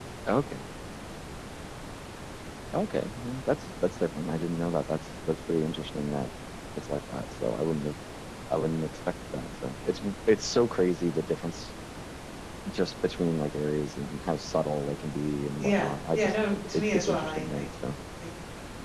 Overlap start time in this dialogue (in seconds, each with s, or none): 15.6 s